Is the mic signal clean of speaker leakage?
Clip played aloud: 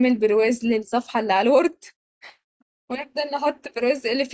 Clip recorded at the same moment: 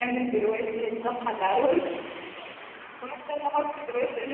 No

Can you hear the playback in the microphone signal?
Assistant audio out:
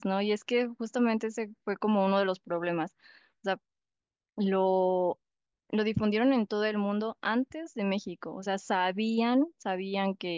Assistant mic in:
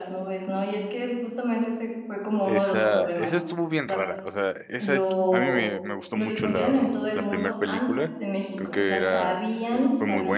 Yes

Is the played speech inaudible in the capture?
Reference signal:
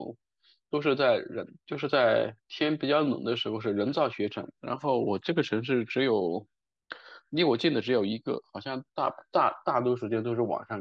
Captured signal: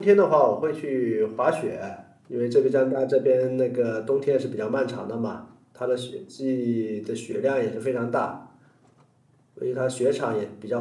Yes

